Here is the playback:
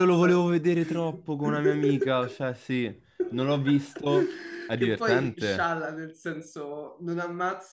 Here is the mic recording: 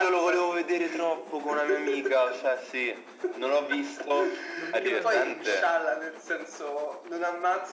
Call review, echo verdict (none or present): present